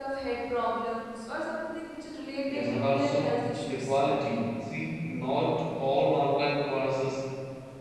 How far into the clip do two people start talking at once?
2 s

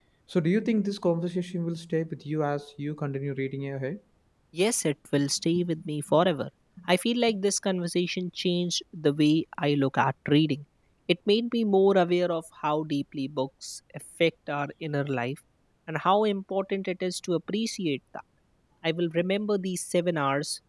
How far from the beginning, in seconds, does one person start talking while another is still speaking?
none

